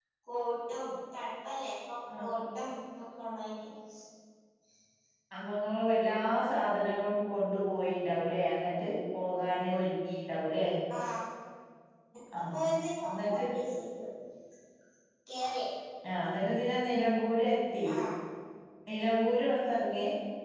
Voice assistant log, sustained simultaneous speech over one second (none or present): none